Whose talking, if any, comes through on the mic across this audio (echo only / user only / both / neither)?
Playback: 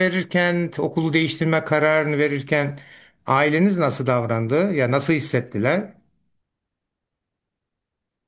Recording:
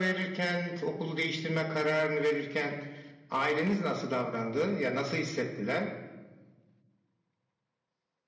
echo only